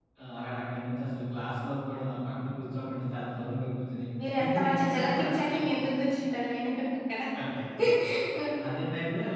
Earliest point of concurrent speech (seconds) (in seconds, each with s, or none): 4.2 s